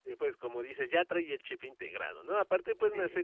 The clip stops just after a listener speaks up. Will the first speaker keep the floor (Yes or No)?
Yes